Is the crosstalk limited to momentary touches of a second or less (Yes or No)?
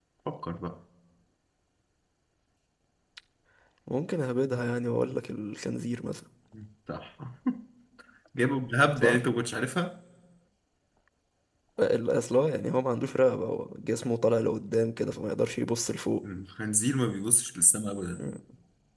Yes